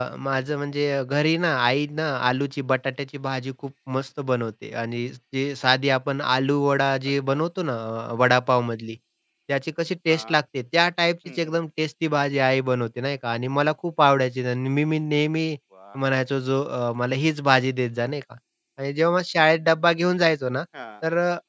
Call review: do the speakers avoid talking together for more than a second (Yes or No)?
Yes